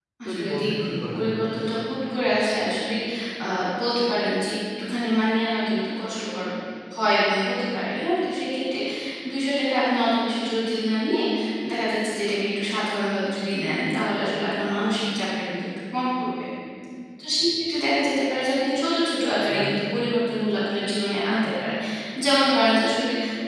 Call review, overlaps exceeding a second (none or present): present